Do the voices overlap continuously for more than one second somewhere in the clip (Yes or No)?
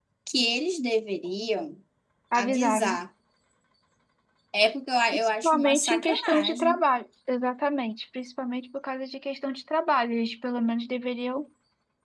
Yes